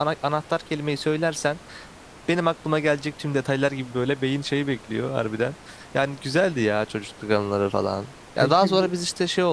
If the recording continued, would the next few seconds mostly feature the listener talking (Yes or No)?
No